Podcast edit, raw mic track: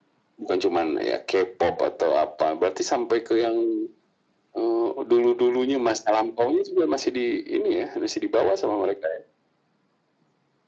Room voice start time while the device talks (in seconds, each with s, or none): none